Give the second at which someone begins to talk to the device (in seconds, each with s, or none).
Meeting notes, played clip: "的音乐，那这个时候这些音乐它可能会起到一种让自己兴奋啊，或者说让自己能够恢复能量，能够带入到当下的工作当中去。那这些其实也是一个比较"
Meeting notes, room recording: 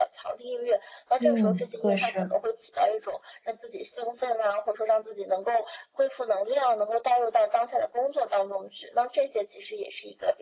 1.2 s